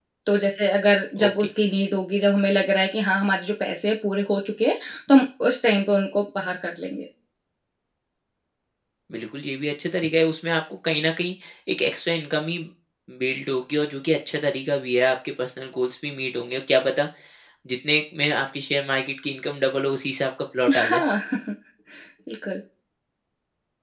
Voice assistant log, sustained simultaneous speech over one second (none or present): none